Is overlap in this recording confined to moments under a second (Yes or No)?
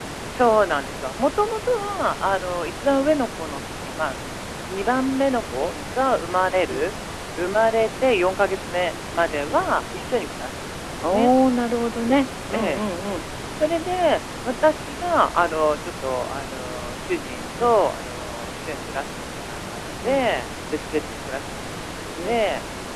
Yes